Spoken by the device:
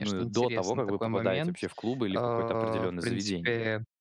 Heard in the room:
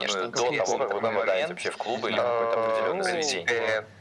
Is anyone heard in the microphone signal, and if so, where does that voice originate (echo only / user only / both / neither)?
both